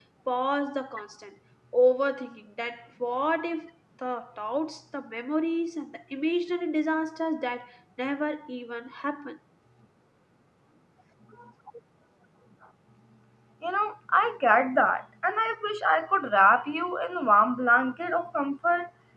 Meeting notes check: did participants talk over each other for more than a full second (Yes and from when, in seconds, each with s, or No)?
No